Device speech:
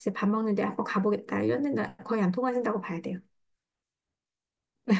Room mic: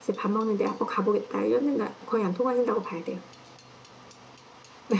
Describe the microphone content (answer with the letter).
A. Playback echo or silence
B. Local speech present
A